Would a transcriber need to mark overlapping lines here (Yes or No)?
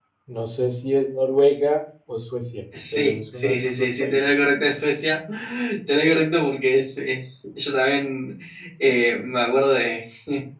Yes